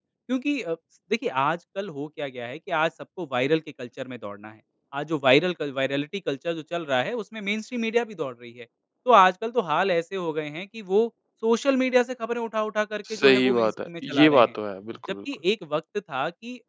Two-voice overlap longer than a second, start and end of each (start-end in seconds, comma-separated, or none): 13.1-14.5